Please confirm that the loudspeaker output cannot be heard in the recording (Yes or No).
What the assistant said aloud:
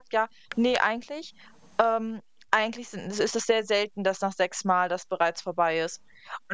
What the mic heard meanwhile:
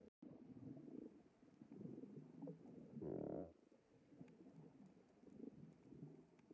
Yes